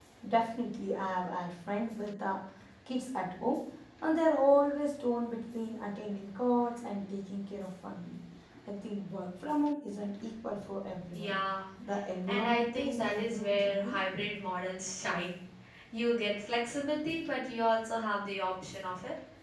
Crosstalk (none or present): present